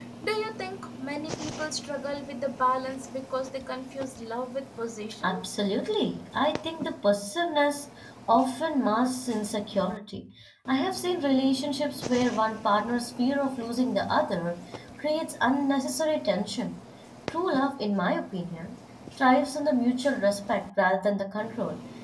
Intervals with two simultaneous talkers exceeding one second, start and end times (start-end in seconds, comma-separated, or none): none